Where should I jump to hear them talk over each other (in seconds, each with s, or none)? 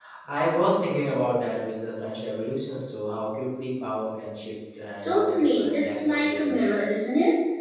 5.0 s